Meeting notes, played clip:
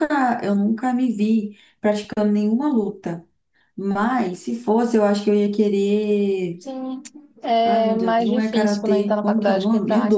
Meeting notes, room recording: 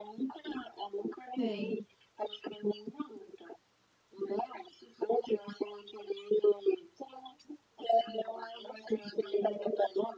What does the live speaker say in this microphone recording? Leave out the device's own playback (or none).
Sei.